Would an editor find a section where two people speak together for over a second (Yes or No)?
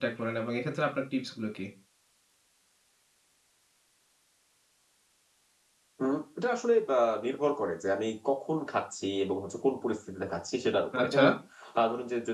No